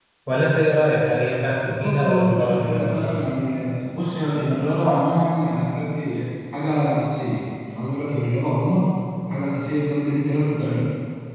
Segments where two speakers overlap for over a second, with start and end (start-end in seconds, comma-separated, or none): 1.6-3.2